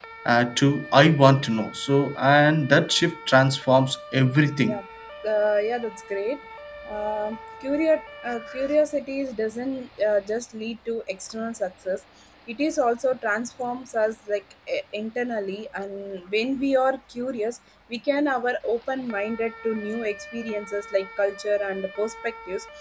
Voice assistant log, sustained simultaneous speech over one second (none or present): none